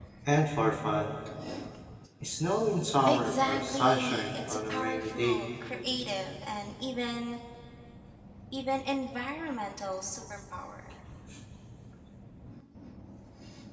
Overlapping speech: Yes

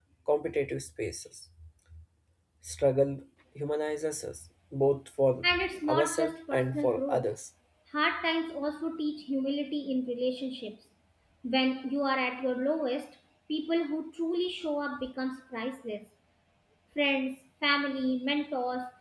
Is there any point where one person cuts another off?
Yes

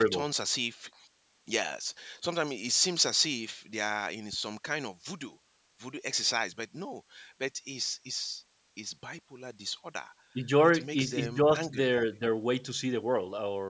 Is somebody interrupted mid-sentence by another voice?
Yes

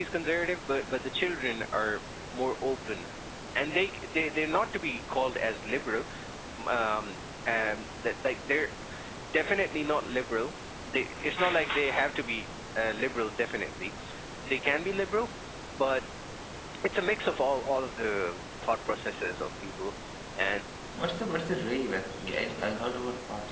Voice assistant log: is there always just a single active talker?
Yes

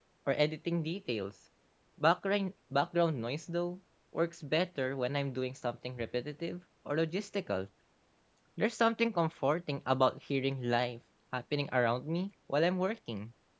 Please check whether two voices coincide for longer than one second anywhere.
No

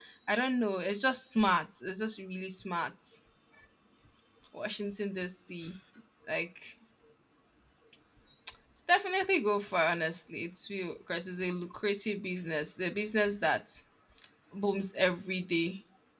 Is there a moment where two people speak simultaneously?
No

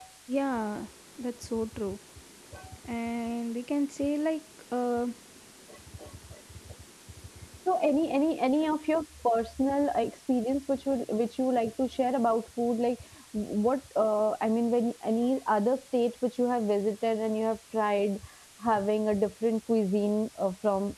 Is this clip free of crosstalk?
Yes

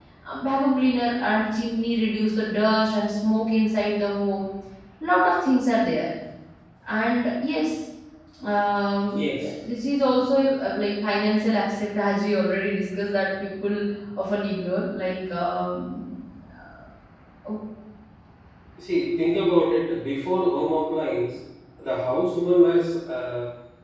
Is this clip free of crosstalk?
Yes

